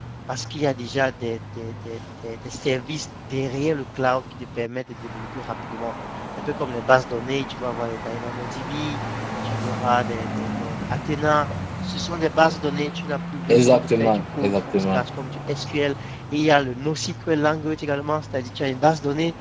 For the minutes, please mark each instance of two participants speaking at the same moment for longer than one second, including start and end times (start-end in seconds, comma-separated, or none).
13.5-15.0